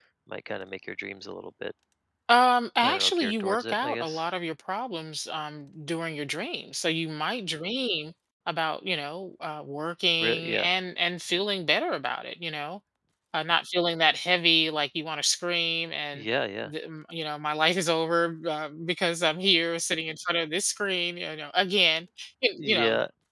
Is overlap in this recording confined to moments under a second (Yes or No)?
No